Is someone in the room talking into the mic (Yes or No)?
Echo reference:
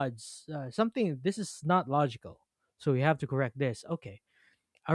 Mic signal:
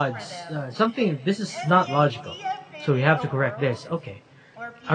Yes